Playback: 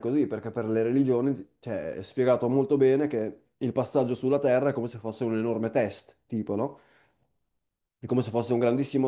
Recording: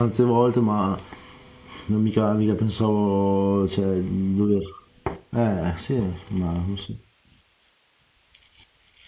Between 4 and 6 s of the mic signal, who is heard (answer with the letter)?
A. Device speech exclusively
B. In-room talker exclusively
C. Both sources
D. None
B